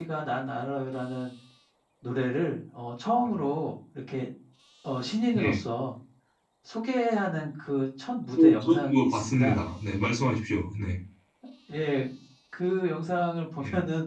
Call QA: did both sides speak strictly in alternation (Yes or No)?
No